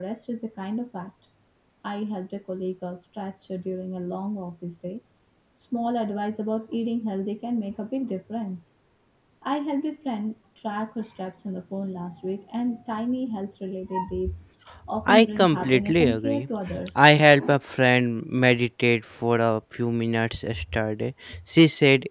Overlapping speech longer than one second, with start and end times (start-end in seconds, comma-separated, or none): 15.1-16.5